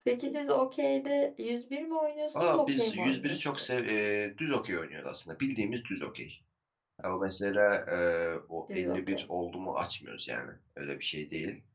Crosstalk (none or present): present